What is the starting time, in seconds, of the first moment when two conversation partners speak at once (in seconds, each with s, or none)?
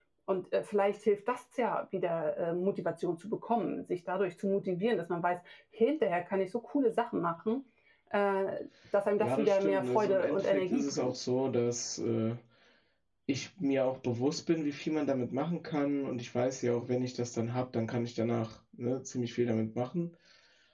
9.2 s